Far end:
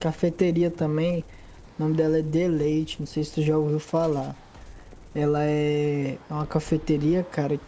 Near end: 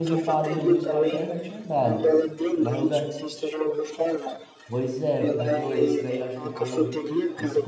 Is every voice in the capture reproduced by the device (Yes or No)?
No